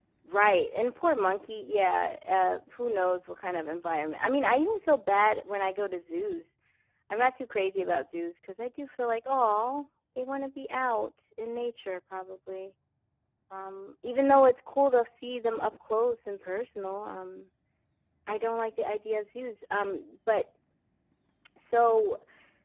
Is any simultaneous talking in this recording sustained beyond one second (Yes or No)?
No